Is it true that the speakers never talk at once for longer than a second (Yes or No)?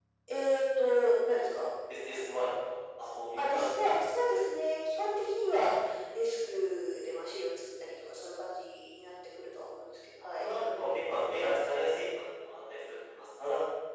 Yes